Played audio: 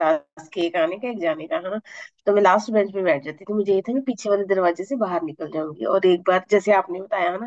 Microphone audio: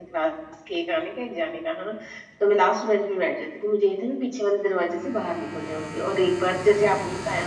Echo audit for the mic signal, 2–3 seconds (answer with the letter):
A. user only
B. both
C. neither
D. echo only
D